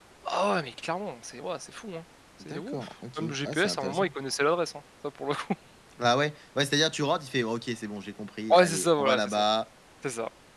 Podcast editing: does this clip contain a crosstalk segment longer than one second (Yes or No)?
Yes